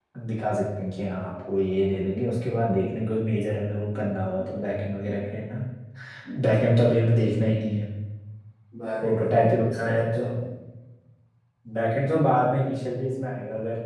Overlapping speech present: Yes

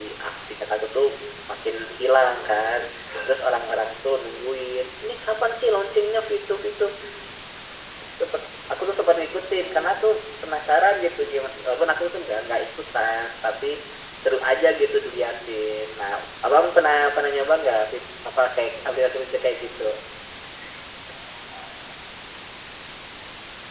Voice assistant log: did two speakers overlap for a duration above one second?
No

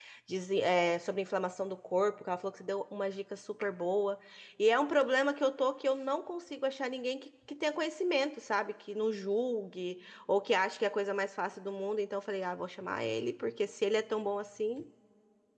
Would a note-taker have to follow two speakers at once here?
No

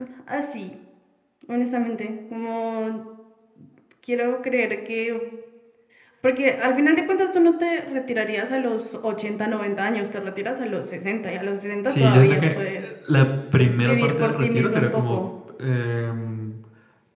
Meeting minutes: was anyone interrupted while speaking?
Yes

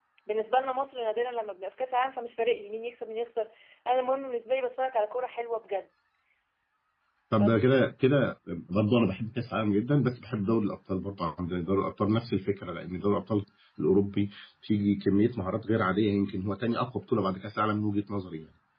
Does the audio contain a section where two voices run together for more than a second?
No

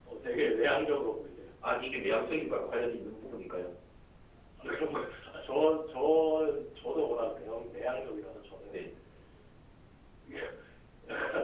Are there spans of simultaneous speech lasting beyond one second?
No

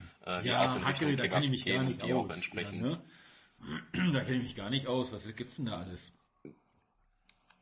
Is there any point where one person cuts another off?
Yes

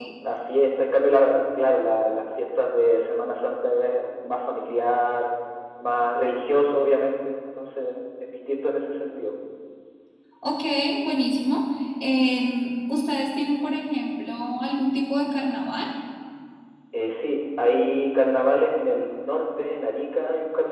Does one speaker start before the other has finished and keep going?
No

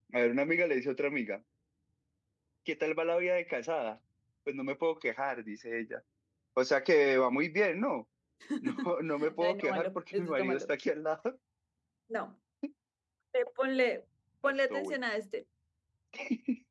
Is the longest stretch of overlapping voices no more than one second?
No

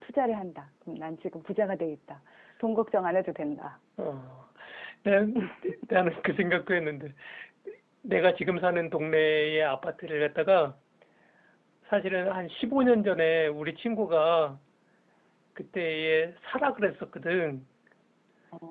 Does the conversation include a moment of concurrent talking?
No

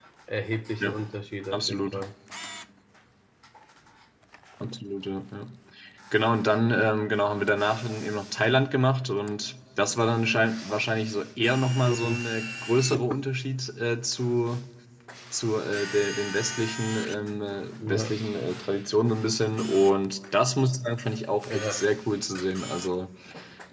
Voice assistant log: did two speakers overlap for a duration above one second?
No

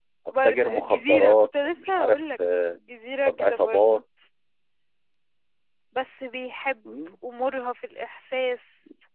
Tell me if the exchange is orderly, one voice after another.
No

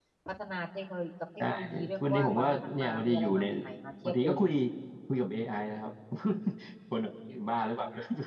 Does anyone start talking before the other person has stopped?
Yes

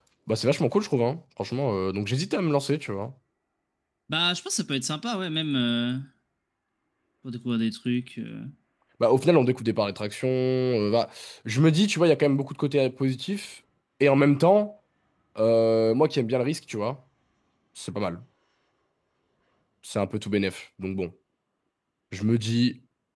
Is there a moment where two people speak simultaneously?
No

